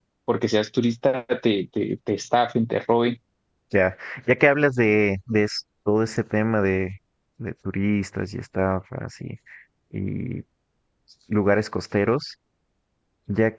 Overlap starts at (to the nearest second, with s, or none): none